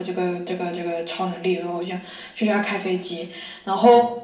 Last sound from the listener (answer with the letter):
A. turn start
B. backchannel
B